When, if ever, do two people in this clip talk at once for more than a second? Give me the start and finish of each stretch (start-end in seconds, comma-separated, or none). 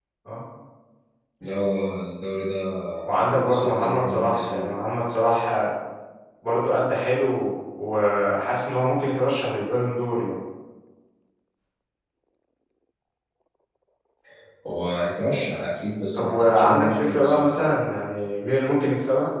3.3-4.7, 16.1-17.8